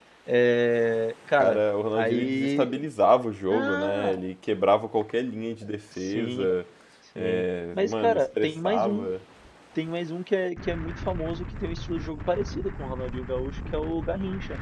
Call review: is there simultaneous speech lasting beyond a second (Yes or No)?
Yes